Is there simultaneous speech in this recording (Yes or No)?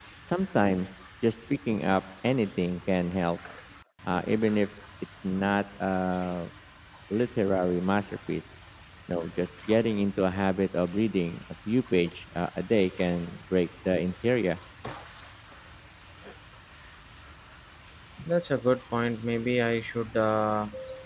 No